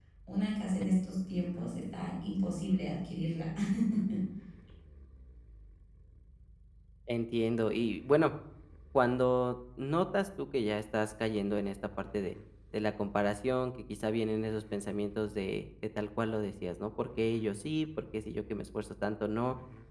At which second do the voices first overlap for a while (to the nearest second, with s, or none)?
none